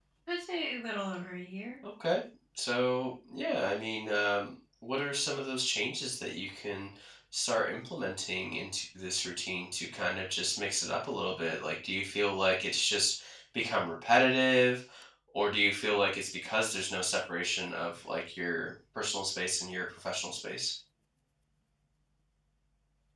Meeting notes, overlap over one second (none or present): none